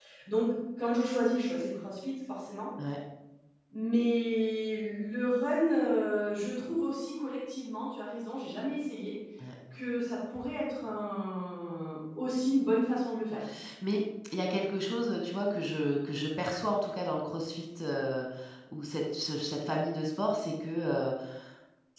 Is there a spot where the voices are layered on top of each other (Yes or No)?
No